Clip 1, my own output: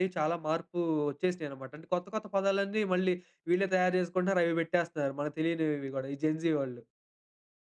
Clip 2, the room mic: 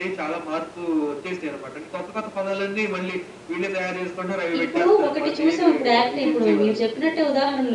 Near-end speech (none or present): present